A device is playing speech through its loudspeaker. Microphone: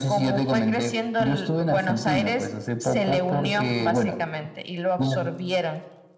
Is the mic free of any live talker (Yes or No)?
Yes